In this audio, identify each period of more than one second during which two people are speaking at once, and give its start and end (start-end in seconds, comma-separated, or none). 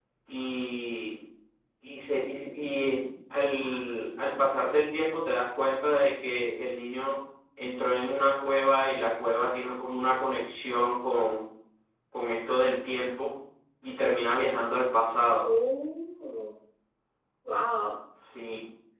none